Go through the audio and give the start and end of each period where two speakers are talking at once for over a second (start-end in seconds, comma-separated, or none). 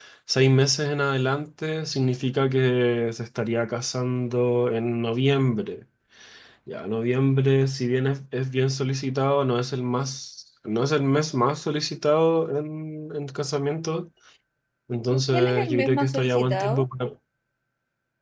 15.1-16.9